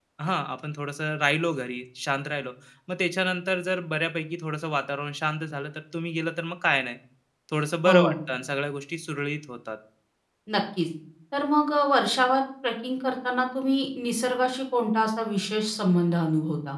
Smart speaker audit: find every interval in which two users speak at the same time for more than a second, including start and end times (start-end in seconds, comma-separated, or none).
none